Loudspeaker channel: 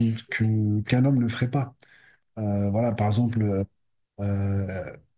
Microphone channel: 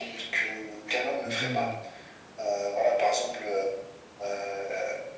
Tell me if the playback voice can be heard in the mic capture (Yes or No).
Yes